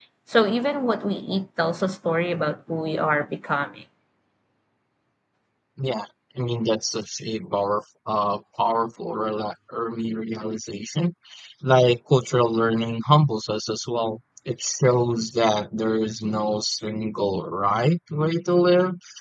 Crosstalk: none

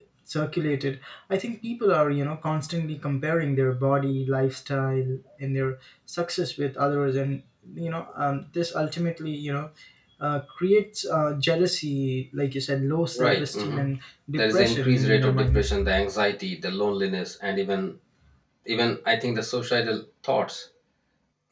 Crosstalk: present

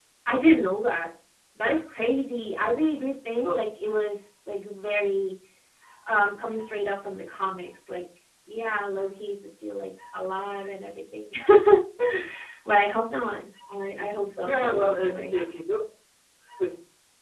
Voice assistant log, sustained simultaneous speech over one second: present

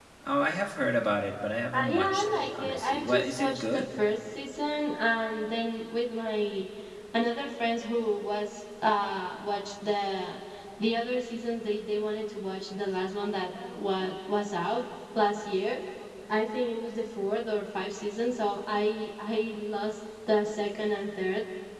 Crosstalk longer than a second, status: present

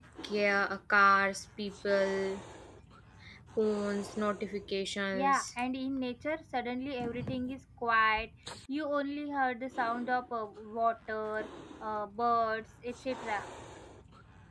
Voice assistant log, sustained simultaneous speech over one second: none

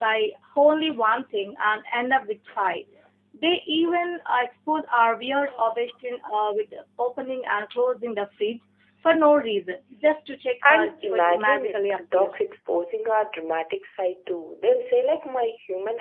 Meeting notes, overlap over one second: present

